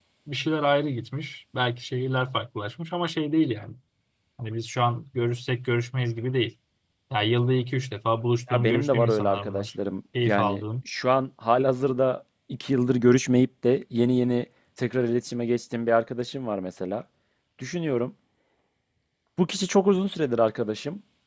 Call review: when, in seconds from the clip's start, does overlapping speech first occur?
8.5 s

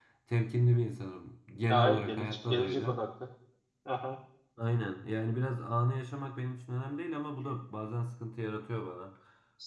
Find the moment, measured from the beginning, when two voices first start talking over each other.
1.7 s

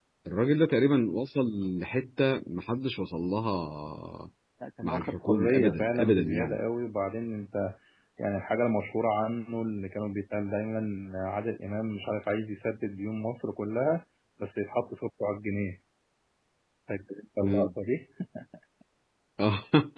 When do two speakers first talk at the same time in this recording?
4.8 s

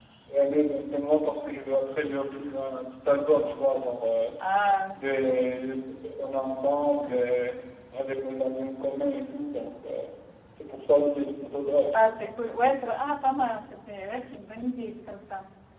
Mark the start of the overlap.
none

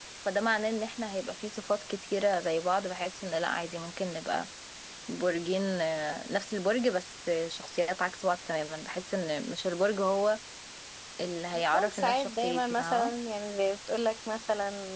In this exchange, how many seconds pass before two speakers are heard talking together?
11.7 s

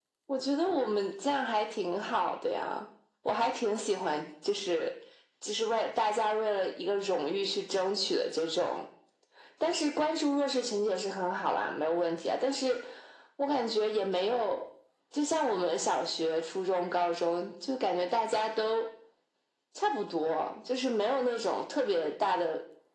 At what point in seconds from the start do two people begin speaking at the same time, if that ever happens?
none

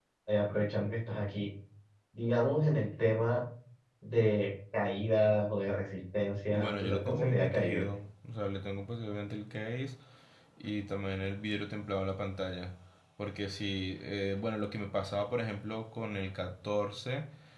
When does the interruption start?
6.5 s

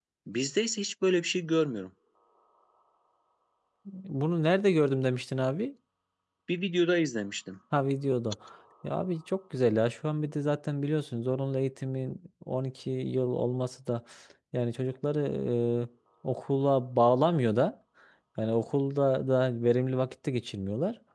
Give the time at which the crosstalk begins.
none

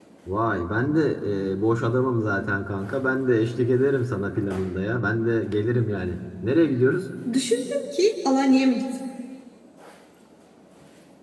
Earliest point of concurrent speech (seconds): none

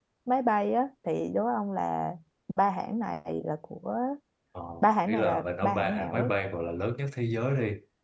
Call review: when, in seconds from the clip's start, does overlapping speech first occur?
5.1 s

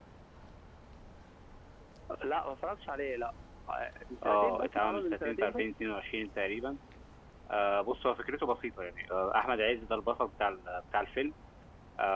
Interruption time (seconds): 4.2 s

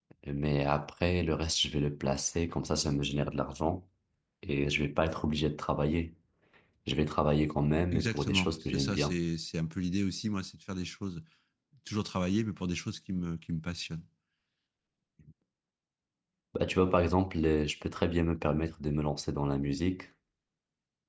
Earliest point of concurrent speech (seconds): 7.9 s

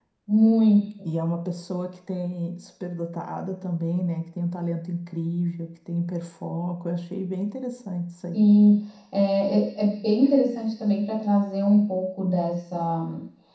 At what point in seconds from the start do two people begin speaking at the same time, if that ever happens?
none

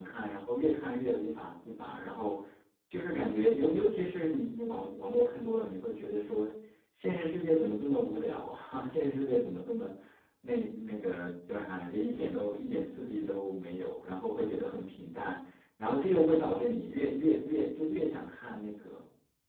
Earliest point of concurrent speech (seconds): none

